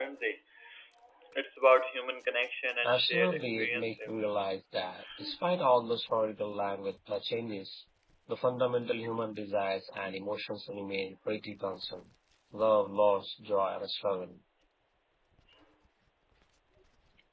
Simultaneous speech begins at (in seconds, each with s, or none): 2.8 s